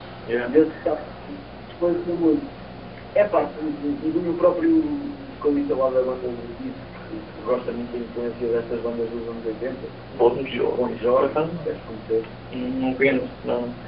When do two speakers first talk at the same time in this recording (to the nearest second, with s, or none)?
11 s